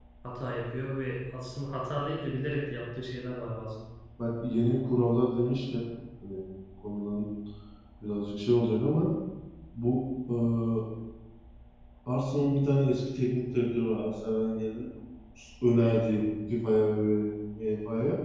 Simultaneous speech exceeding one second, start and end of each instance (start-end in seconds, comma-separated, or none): none